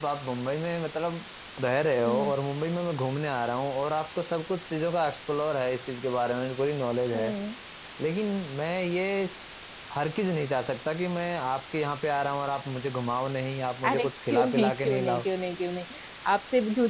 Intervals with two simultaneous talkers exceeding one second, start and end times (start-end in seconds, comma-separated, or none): 13.9-15.2